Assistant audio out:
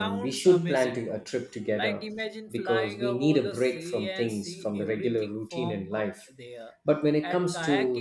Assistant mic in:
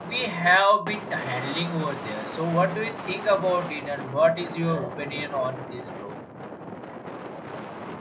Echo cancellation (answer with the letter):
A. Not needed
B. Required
A